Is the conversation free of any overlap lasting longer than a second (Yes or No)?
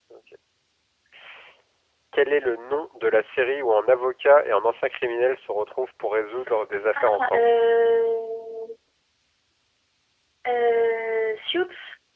Yes